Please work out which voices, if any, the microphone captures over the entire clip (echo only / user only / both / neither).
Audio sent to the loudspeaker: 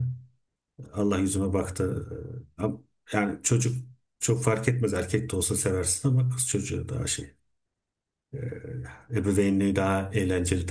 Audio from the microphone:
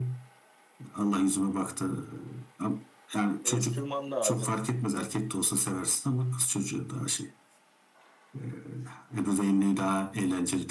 both